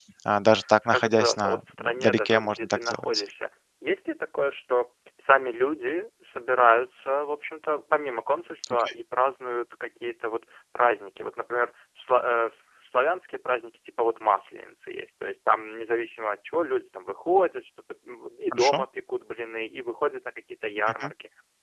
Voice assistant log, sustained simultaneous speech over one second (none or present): present